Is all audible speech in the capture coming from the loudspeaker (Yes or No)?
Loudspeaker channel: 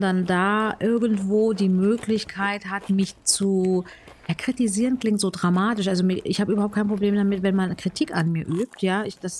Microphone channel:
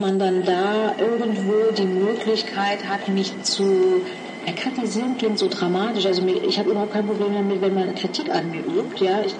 Yes